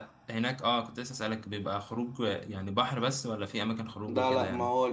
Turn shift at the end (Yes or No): Yes